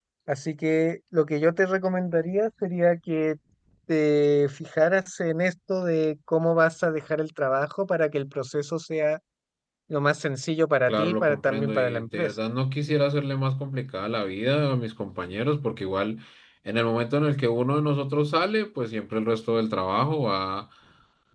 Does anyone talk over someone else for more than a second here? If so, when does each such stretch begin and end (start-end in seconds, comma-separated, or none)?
10.9-12.3